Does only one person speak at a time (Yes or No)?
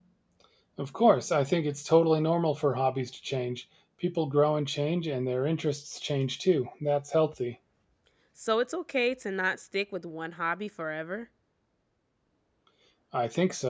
Yes